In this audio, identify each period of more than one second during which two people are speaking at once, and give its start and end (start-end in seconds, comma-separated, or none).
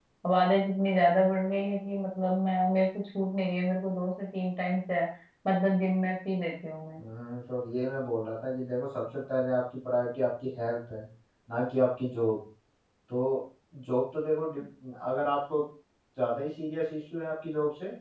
none